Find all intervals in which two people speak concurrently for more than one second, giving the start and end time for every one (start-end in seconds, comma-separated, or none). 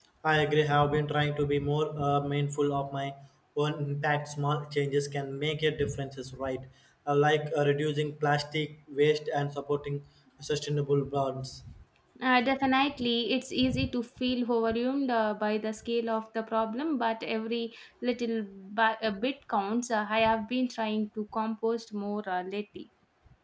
none